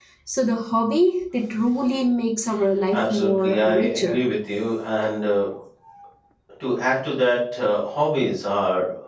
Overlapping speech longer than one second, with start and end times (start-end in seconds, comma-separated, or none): 2.9-4.2